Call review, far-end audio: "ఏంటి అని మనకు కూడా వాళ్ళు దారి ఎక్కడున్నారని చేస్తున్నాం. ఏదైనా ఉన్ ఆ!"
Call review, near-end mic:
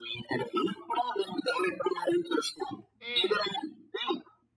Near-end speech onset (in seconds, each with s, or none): 3.0 s